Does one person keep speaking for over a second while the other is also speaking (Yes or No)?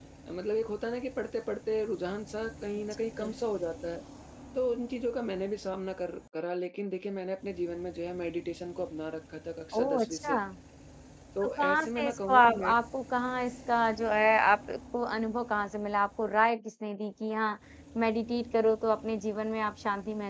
Yes